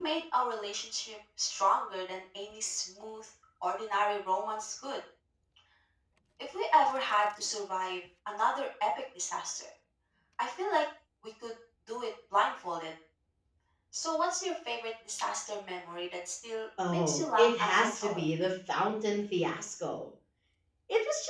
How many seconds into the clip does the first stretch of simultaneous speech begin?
16.8 s

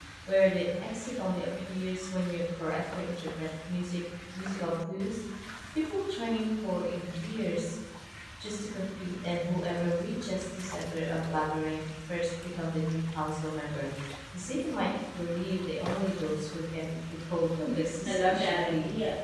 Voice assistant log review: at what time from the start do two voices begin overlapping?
17.6 s

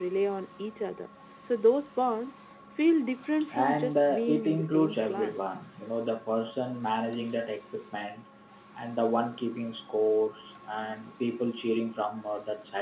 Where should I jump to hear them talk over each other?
3.5 s

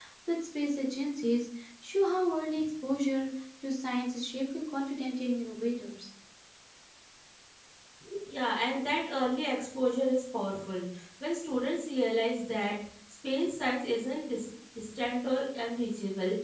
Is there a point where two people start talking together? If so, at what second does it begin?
none

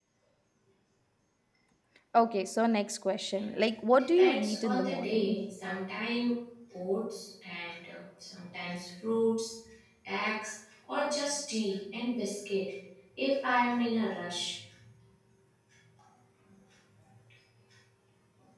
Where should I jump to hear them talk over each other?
4.0 s

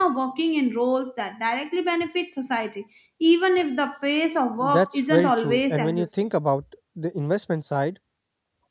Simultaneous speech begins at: 4.6 s

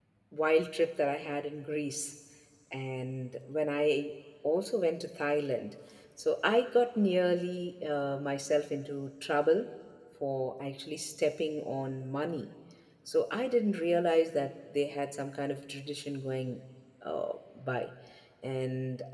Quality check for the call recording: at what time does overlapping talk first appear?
none

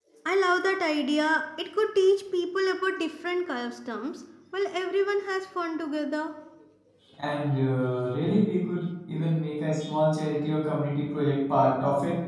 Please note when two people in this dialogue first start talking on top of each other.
none

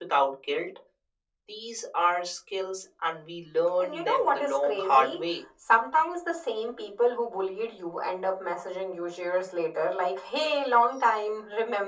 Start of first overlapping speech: 3.8 s

